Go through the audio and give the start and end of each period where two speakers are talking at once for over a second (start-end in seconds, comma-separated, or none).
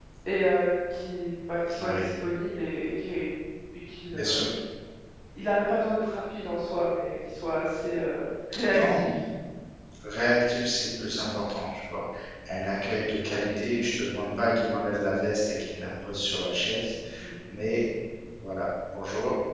none